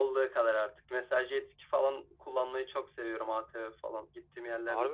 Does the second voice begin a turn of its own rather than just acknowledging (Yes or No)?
Yes